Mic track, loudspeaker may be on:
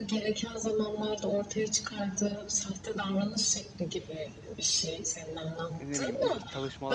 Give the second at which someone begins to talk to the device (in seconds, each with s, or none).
5.7 s